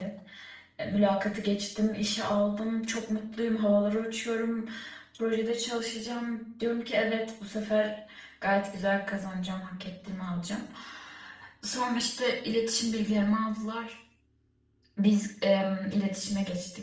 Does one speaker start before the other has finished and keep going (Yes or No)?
No